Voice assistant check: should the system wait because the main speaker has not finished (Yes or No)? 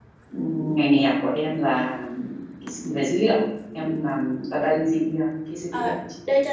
No